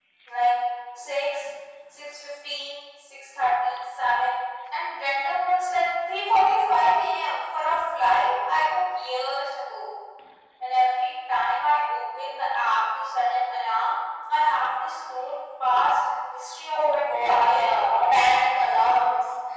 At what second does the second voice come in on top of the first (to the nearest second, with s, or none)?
17 s